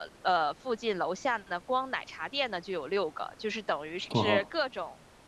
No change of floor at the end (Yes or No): Yes